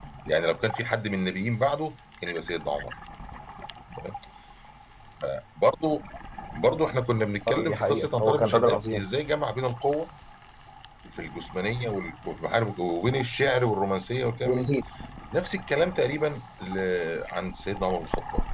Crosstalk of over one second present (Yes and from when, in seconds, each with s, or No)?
Yes, from 7.5 s